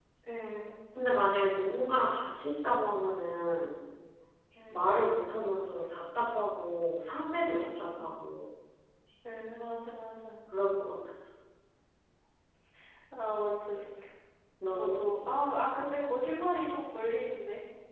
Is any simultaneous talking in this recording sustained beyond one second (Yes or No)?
No